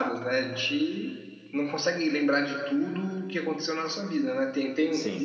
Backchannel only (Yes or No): Yes